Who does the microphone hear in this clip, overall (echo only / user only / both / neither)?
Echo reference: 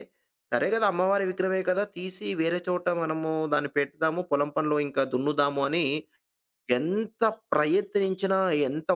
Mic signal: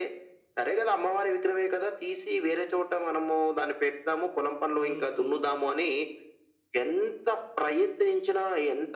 both